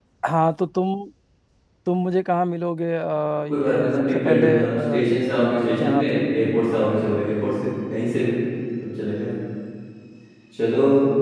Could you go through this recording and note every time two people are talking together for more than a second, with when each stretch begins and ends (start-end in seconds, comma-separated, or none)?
3.5-5.0